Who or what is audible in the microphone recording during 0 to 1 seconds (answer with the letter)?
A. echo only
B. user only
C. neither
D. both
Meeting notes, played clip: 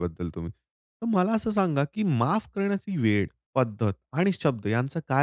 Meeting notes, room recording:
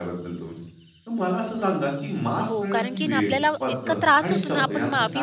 A